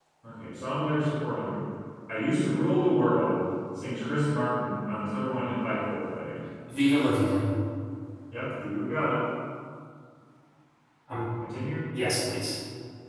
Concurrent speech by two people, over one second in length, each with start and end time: none

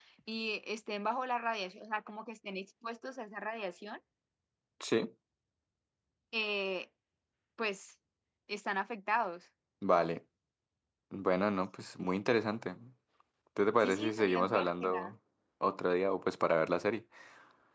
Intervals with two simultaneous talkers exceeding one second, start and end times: 13.8-15.1

